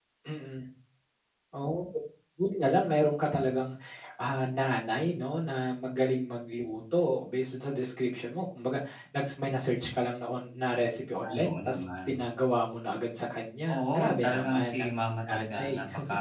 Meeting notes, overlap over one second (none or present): present